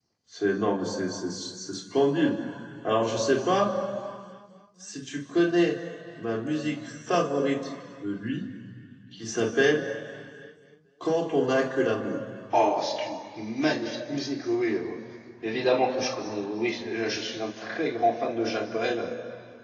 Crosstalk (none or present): none